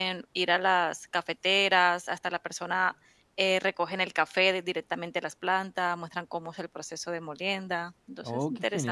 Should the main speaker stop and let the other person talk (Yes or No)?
Yes